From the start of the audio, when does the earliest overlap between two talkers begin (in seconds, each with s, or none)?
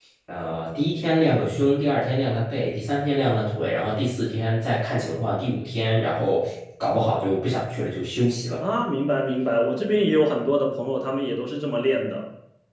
none